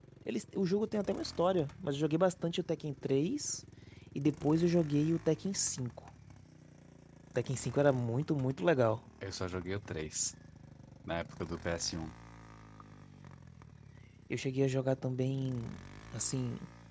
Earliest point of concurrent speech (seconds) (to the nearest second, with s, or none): none